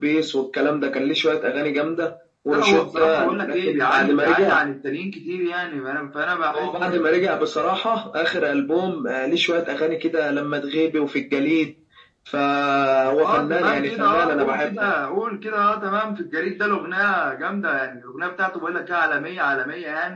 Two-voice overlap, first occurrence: 2.5 s

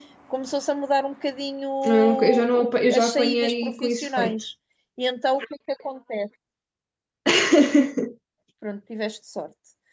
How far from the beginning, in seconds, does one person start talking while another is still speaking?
1.8 s

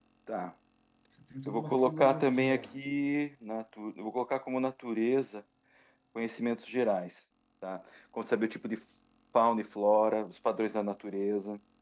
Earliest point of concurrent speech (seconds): 1.4 s

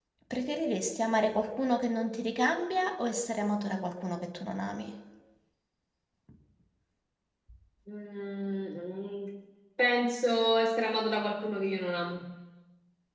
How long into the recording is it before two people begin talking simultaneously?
none

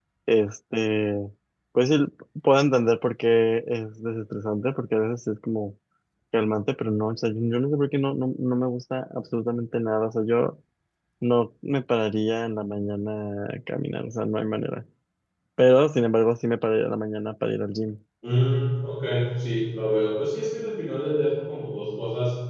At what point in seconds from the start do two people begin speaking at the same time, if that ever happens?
none

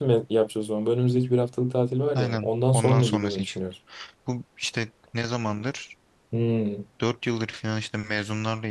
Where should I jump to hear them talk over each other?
2.2 s

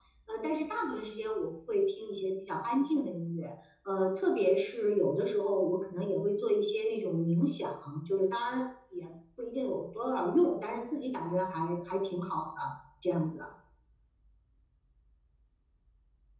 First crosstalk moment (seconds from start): none

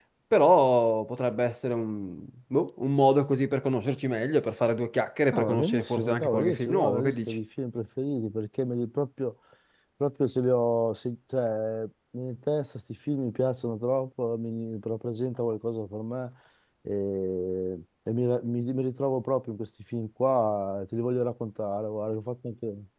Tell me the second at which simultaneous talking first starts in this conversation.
5.3 s

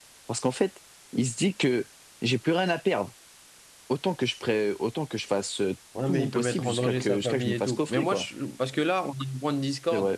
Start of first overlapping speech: 6.1 s

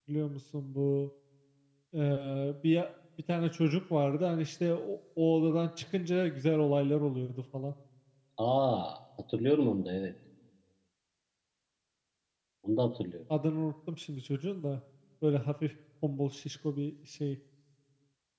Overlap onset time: none

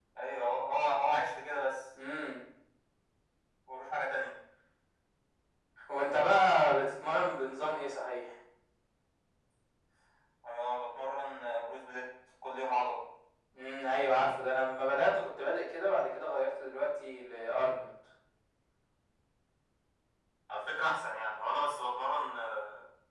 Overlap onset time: none

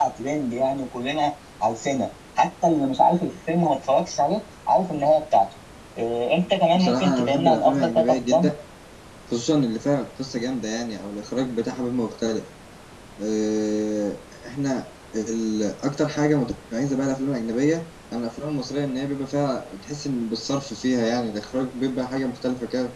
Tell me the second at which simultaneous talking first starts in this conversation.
6.8 s

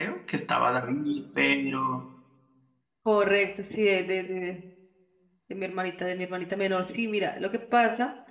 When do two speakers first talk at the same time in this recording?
none

